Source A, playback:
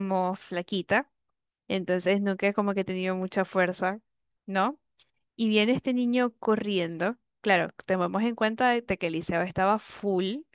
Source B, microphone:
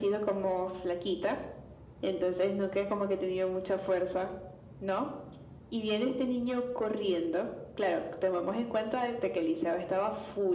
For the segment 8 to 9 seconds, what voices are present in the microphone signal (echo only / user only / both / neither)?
echo only